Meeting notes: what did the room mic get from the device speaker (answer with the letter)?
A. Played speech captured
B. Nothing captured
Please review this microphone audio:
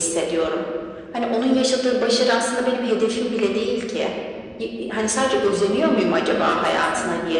A